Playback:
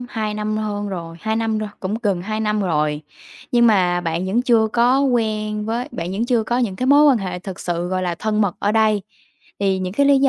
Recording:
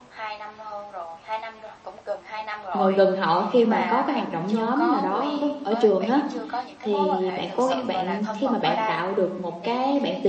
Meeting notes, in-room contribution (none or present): present